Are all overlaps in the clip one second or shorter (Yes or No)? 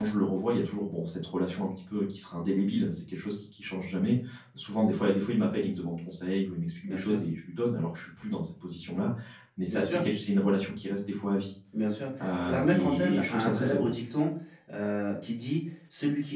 No